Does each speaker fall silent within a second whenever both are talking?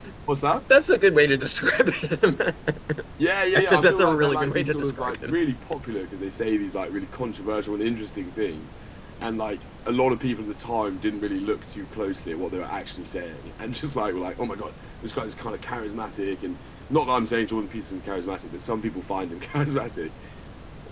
No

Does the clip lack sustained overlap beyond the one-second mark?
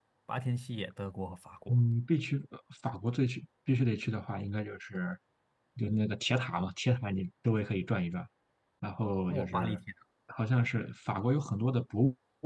Yes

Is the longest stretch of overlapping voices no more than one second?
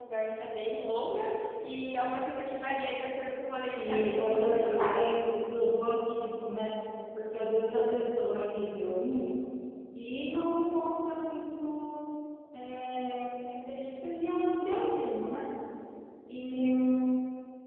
No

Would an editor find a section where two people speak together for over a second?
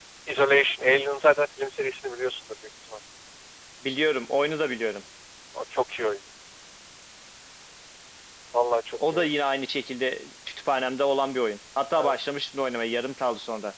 No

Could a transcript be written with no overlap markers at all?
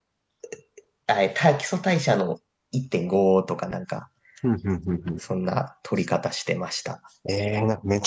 Yes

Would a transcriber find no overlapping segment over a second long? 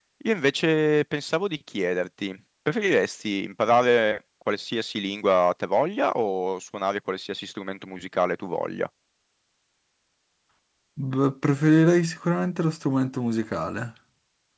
Yes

